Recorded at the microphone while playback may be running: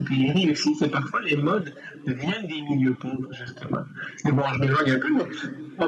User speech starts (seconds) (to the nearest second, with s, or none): none